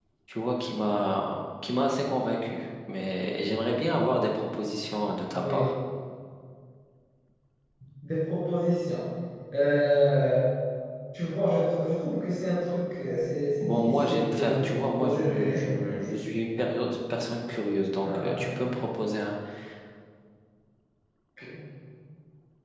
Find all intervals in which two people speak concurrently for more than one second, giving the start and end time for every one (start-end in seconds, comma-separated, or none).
13.6-15.6